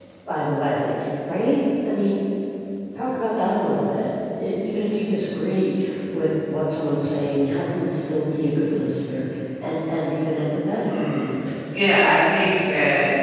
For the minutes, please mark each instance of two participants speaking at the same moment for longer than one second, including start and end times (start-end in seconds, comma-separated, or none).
none